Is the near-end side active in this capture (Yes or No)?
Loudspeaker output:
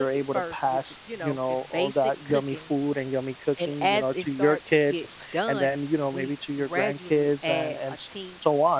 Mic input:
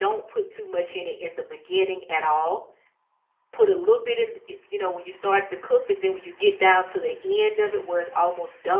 Yes